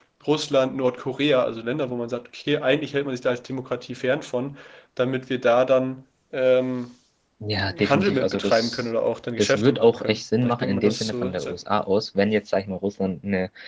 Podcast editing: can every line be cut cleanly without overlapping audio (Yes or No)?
No